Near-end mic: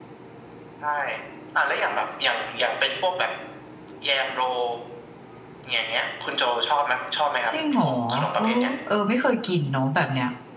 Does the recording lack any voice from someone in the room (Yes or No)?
No